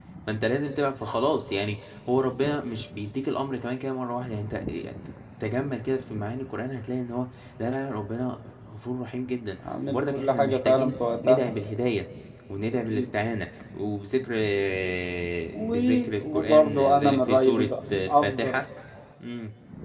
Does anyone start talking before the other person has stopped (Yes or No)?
Yes